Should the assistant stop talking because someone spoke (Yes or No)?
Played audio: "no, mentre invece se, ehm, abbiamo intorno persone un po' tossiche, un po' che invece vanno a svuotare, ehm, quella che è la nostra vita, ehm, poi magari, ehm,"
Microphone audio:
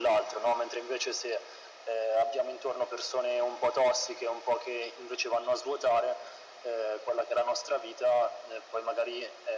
No